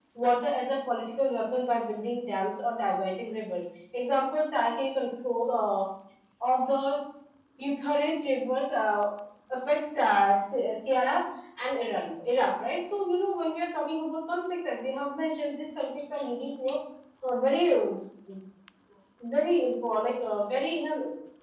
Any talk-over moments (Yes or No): No